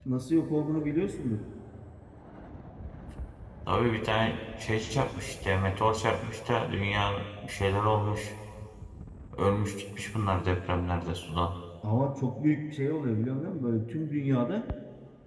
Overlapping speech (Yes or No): No